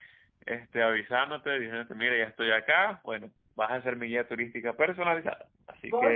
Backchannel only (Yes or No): No